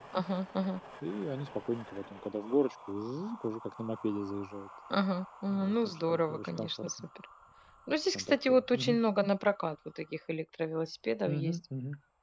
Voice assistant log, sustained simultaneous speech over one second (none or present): present